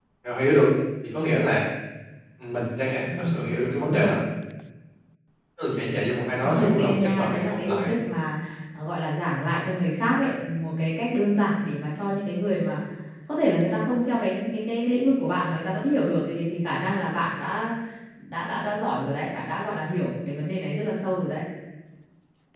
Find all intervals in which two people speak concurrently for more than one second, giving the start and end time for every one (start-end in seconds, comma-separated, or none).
6.6-7.9